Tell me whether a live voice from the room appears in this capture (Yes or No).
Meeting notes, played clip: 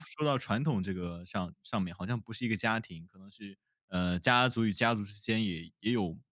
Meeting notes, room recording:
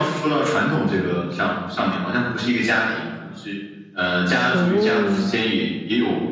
Yes